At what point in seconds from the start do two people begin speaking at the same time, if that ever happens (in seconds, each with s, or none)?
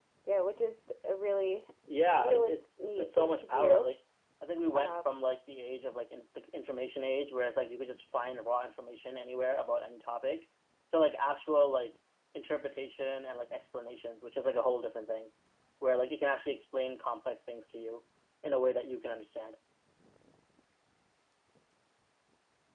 2.1 s